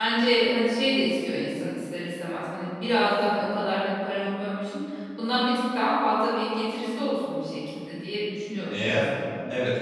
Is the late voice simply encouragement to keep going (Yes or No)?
No